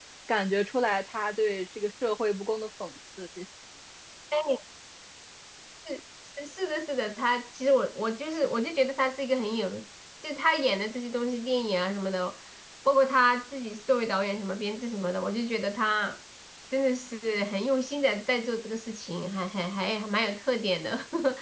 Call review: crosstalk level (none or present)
none